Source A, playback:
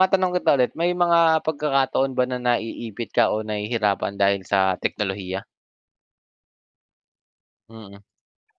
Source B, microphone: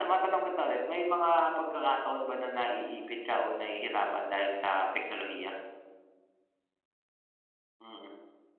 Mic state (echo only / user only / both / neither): echo only